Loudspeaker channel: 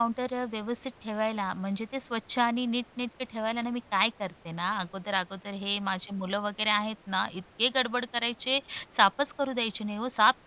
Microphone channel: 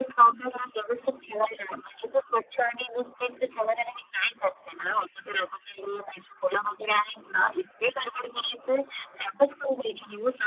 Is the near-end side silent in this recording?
Yes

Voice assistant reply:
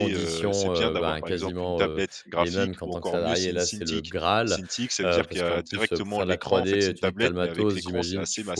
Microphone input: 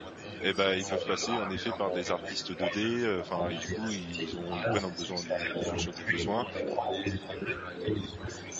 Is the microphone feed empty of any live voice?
No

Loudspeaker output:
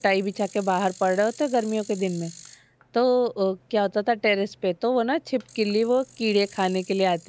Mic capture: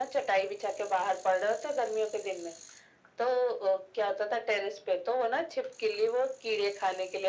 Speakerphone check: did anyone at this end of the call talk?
No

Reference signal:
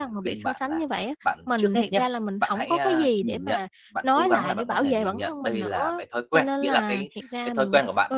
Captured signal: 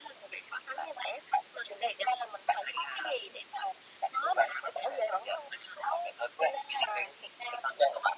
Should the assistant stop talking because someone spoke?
No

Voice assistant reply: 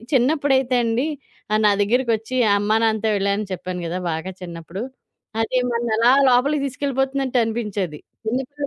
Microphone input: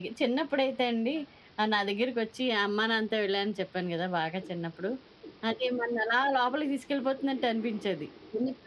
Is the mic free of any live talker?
Yes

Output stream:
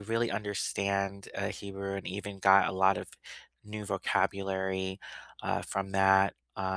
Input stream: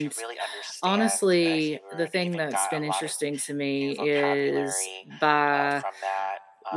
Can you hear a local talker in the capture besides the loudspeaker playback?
Yes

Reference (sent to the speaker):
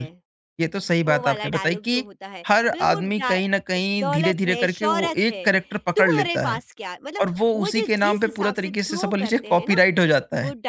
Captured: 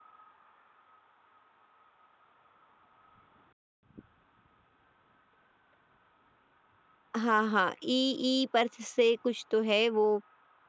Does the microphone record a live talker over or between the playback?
Yes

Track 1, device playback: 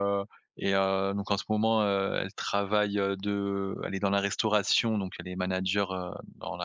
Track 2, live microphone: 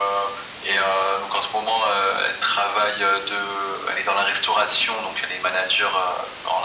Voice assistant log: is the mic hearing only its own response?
Yes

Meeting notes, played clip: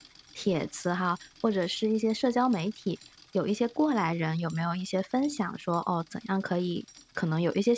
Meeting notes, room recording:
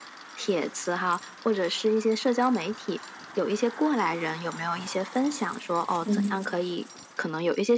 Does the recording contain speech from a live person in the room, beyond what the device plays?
Yes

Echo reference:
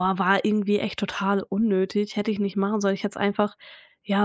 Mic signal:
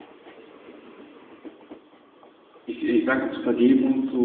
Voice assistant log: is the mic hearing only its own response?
No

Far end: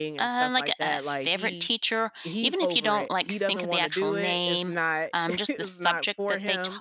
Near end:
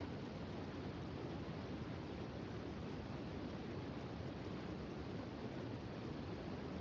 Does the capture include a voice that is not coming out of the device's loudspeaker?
No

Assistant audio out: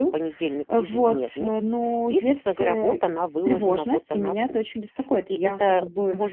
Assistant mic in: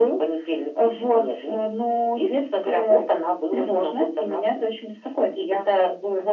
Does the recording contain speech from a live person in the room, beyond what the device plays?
No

